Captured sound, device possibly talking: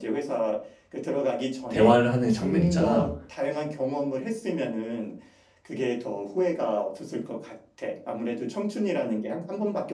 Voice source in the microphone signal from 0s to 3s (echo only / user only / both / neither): both